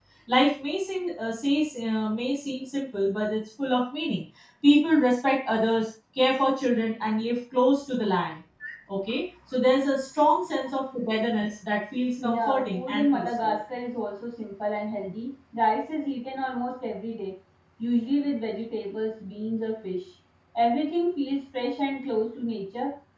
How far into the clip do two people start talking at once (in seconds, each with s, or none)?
12.2 s